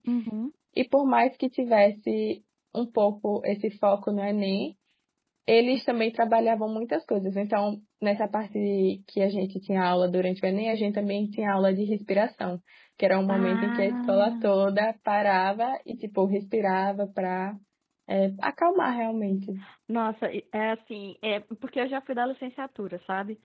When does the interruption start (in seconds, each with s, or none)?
13.3 s